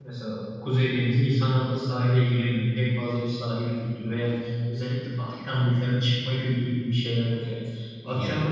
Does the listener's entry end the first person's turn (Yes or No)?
No